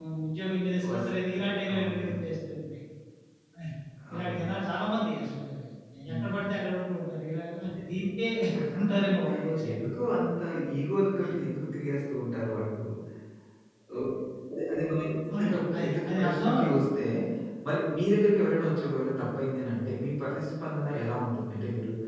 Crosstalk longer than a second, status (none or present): present